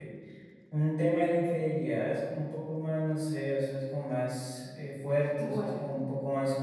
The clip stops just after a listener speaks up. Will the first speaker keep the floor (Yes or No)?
Yes